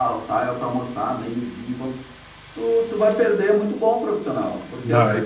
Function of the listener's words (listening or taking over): listening